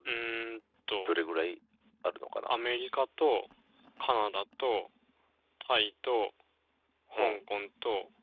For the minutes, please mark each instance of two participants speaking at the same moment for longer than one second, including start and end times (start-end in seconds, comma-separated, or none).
none